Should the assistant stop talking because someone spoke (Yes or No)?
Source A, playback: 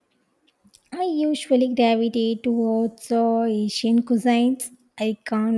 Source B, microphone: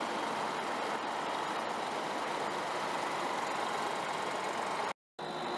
No